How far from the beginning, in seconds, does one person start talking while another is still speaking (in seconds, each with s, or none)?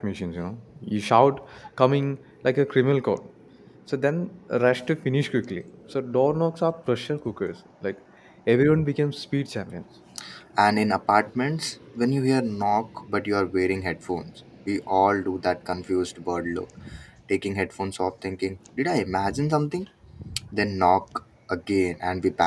none